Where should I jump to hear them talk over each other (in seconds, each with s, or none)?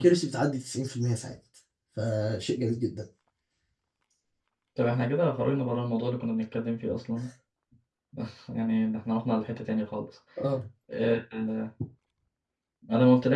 none